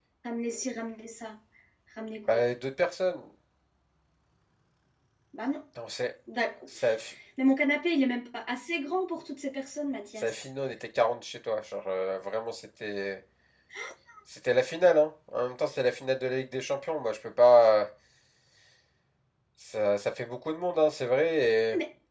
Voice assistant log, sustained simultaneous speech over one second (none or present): none